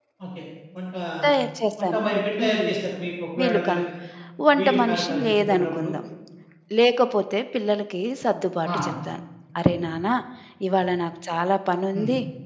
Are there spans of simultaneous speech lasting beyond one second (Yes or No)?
Yes